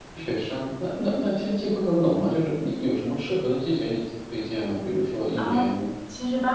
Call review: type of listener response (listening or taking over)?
taking over